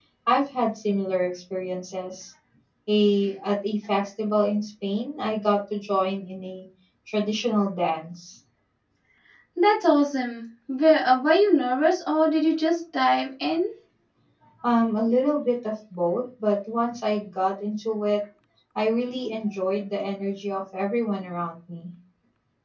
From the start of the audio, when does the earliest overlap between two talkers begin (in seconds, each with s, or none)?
none